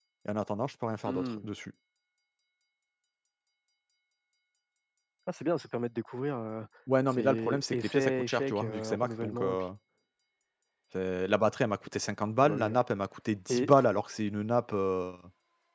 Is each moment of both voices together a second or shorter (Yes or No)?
No